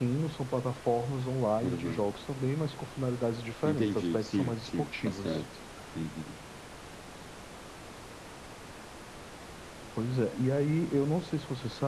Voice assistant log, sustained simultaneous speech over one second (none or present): present